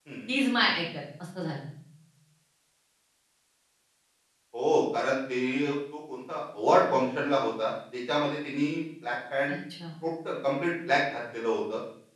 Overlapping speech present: No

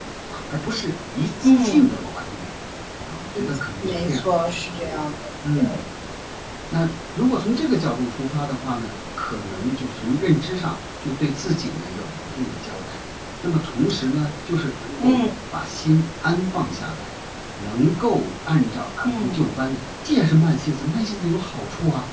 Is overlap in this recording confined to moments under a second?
Yes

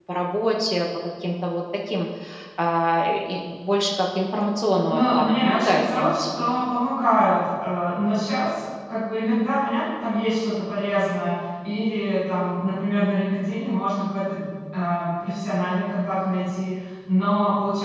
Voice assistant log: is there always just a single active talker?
No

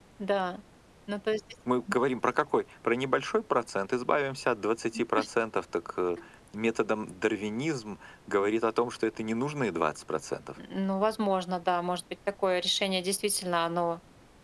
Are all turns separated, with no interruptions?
Yes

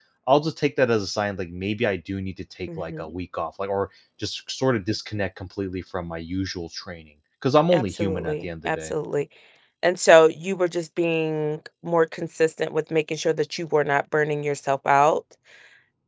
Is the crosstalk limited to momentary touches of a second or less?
No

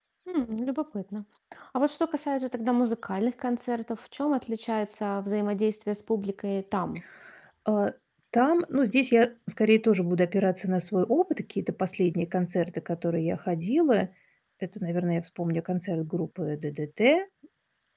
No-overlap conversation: Yes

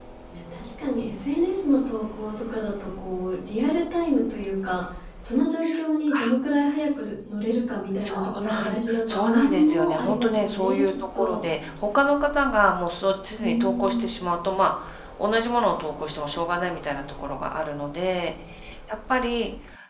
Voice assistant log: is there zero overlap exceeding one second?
No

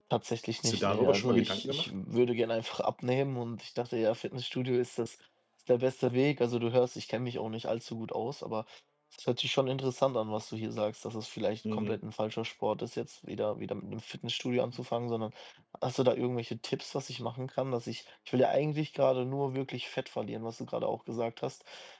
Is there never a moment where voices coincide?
No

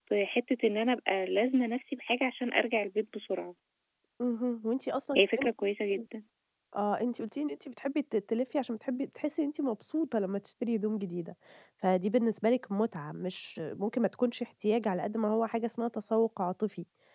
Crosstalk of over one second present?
No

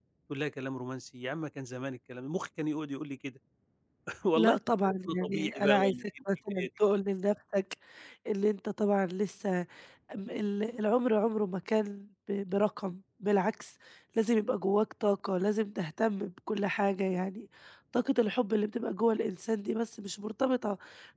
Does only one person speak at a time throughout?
No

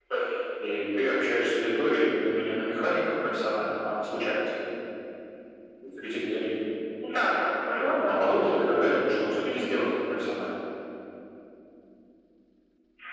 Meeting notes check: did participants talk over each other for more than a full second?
No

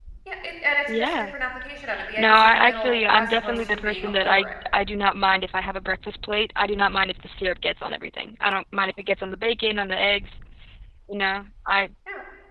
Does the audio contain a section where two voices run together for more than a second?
Yes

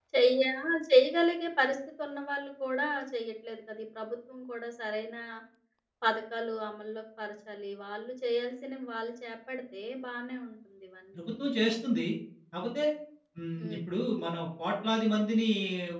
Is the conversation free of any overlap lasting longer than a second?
Yes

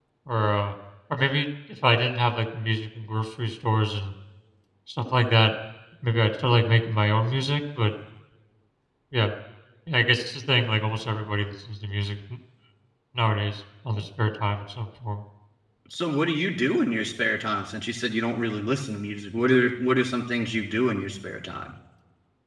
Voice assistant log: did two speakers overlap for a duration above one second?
No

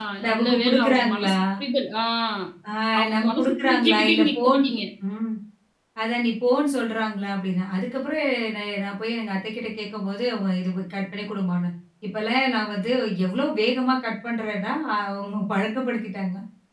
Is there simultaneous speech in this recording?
Yes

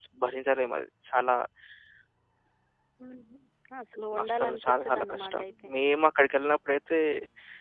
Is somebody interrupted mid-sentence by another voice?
Yes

